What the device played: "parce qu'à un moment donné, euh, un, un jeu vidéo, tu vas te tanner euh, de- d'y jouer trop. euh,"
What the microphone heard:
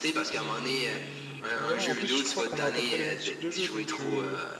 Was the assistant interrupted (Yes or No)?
Yes